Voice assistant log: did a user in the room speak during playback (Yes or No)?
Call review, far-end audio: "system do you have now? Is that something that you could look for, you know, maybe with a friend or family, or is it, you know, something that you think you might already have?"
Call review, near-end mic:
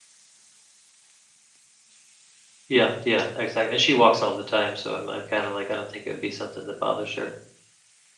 Yes